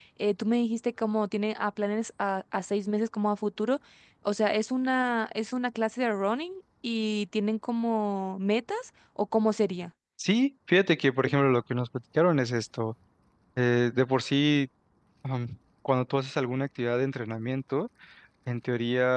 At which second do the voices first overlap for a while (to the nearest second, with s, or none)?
none